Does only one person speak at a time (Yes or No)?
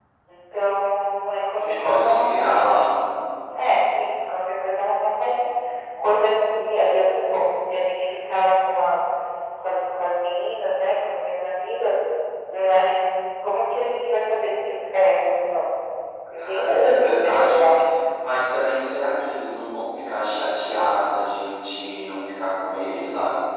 No